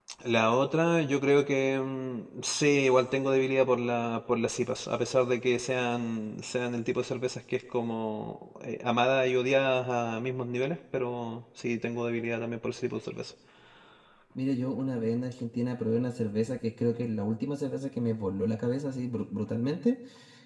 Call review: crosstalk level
none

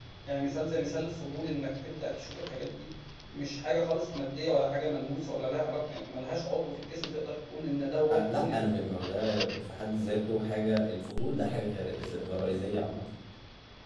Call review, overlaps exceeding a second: none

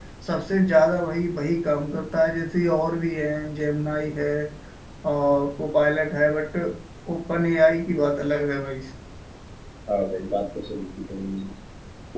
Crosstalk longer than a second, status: none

